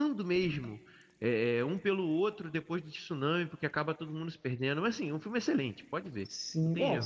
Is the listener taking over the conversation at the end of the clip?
Yes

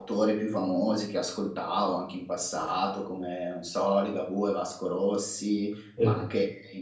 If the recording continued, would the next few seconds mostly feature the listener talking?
No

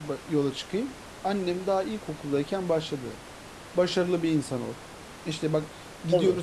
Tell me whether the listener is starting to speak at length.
No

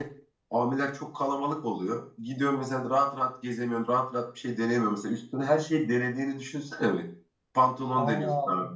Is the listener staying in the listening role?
Yes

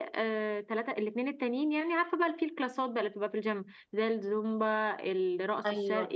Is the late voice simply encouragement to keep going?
No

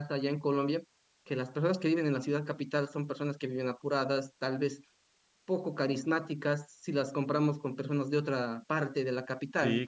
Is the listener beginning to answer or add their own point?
Yes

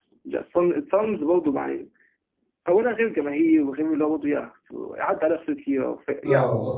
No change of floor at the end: No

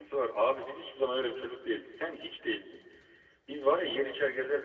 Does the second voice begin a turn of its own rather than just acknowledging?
No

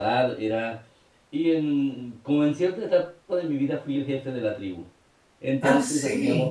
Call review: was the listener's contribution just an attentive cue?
Yes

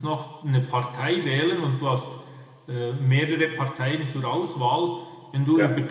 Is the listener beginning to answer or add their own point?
No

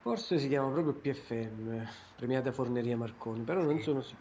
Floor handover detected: No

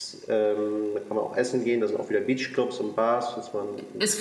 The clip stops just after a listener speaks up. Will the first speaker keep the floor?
No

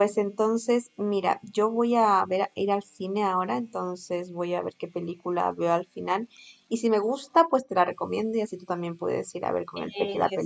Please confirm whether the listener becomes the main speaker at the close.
Yes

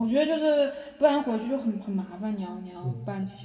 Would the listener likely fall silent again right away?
No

